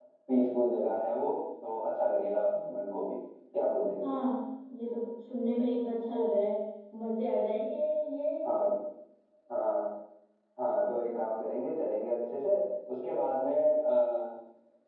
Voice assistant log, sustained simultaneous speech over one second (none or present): none